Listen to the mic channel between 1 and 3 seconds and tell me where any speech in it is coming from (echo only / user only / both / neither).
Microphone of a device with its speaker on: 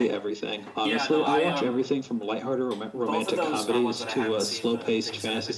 both